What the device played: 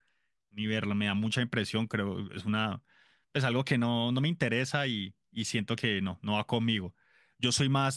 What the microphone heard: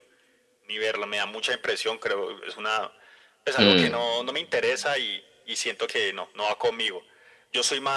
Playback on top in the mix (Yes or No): No